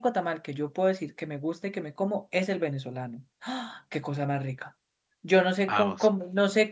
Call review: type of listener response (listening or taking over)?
listening